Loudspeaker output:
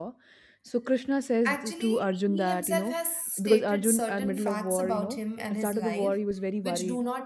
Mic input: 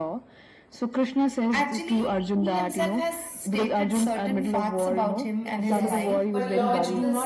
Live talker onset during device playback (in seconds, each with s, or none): 5.5 s